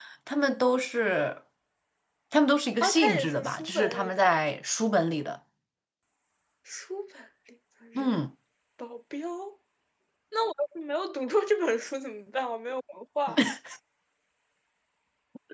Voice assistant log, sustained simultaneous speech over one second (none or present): present